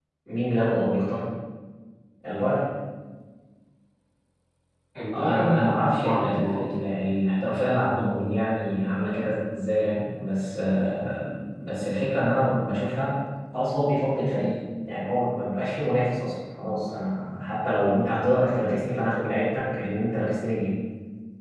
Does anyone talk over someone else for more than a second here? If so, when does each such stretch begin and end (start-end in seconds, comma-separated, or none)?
5.1-6.7